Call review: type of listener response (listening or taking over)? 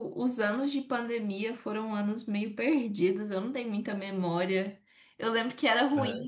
listening